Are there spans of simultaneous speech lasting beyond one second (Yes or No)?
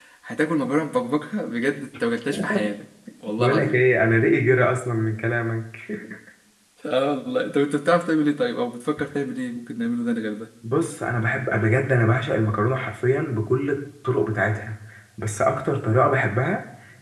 No